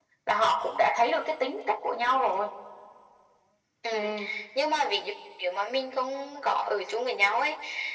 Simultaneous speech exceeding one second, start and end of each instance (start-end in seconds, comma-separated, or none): none